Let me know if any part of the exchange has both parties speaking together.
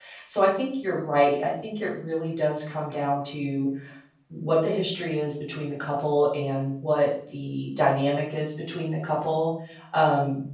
No

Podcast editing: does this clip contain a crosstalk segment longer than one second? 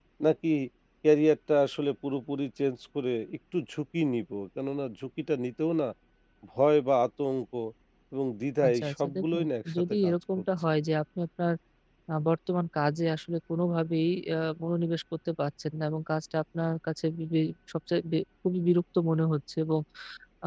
Yes, from 8.6 s

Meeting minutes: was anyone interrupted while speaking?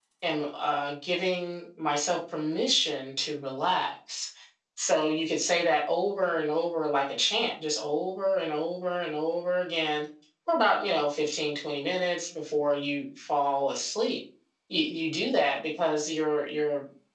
No

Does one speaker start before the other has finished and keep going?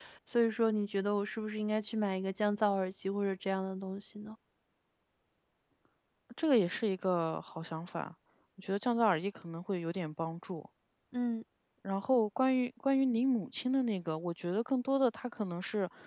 No

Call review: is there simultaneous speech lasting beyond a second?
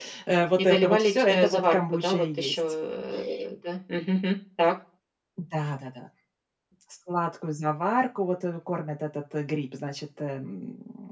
Yes, from 0.6 s

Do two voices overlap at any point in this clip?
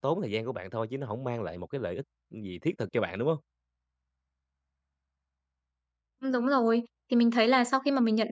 No

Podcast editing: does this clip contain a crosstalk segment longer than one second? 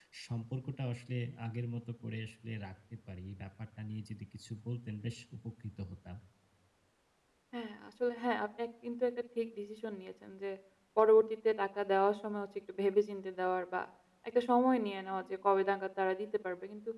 No

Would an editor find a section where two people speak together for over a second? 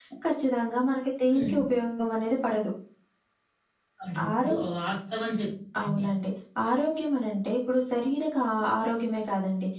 No

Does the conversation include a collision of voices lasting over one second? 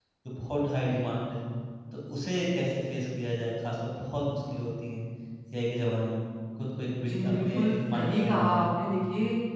Yes, from 7.0 s

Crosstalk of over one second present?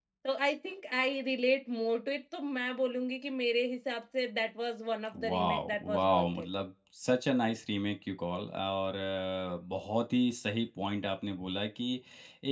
Yes, from 5.1 s

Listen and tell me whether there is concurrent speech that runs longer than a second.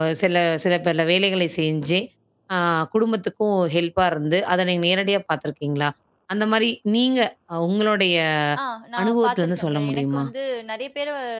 Yes, from 9.0 s

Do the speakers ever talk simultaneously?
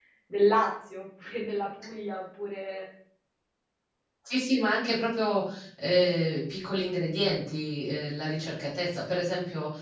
No

